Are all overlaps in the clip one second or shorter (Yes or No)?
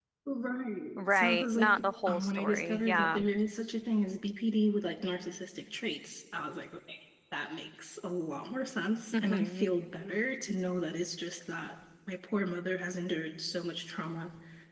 No